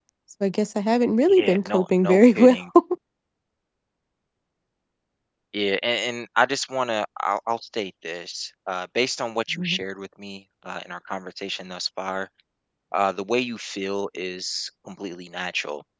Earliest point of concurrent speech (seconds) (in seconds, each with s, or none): 1.3 s